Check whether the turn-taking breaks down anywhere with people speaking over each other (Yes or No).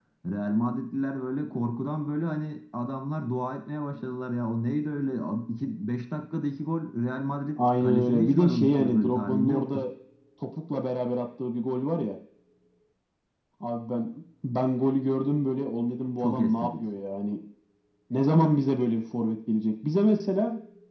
Yes